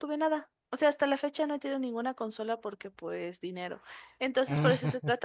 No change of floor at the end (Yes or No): Yes